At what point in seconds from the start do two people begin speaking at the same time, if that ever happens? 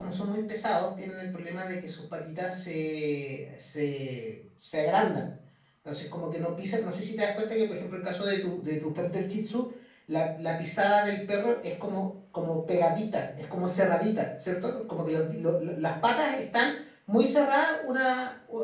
none

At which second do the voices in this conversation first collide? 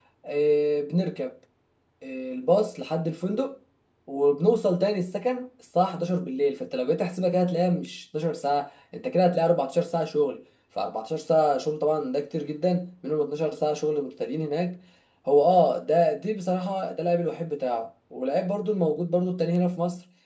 none

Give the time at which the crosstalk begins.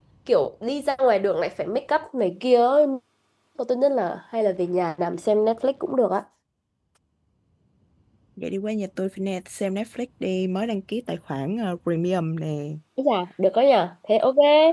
none

